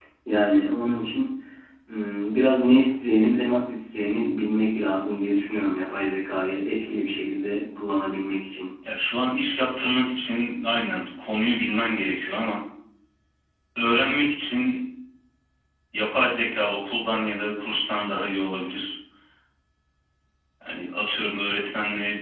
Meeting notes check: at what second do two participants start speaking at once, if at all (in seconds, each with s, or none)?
none